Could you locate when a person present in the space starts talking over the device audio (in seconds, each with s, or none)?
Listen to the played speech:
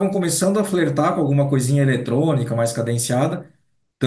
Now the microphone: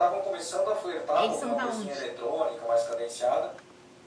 1.1 s